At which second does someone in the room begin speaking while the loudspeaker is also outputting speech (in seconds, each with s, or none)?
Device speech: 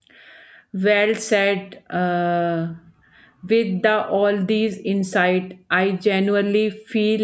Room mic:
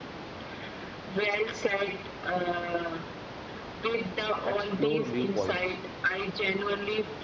4.4 s